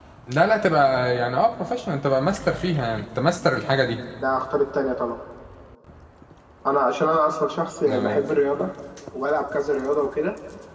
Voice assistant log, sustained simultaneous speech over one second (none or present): none